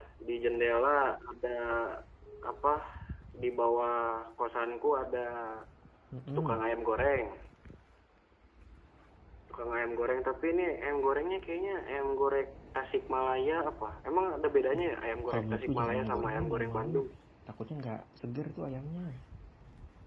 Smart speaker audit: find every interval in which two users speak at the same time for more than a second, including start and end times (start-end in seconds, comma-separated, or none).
15.3-16.9